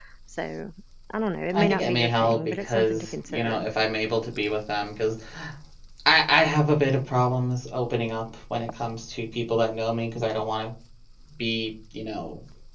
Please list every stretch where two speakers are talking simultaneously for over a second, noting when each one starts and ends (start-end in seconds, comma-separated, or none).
1.5-3.6